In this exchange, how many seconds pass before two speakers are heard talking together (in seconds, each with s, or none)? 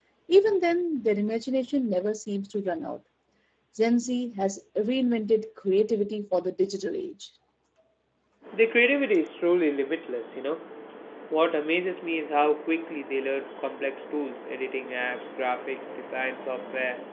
none